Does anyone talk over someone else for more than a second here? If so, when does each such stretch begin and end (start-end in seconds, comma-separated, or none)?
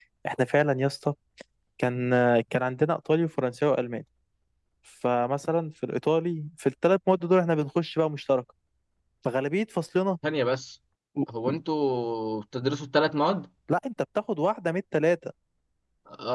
none